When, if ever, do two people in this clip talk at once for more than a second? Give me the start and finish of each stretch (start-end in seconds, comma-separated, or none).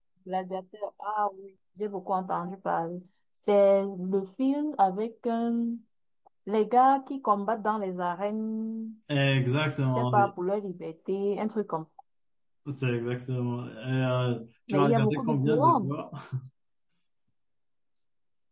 14.7-15.9